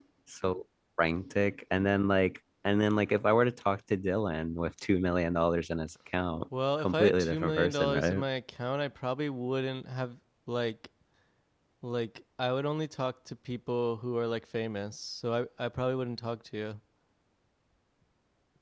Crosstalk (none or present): present